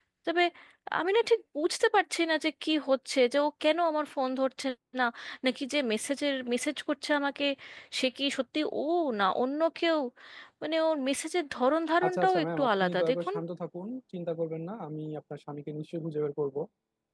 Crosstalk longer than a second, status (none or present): present